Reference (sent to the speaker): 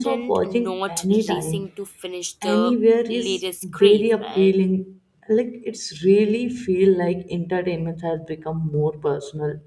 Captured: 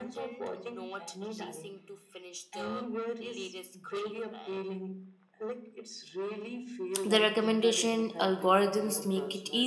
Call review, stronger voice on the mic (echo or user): user